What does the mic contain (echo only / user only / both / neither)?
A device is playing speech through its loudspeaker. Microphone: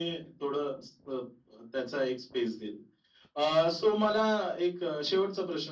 echo only